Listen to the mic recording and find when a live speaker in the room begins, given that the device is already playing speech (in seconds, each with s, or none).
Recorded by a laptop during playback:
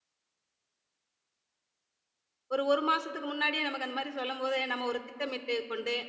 2.5 s